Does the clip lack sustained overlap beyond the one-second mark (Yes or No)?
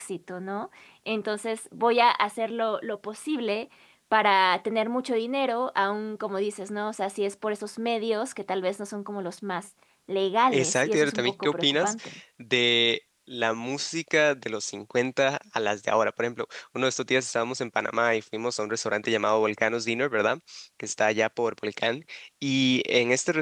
No